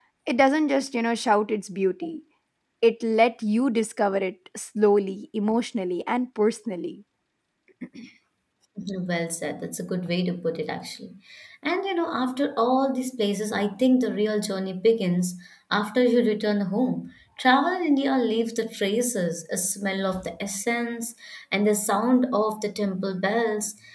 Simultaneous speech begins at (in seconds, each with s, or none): none